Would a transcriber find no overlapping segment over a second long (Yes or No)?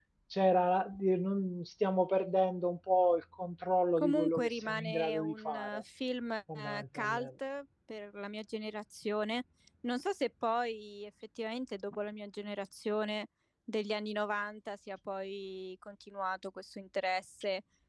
No